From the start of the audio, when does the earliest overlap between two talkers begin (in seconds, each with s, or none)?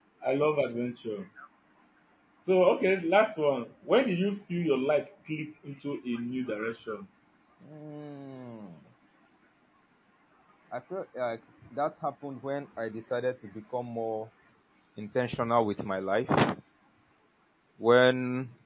none